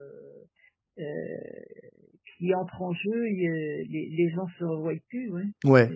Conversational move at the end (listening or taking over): taking over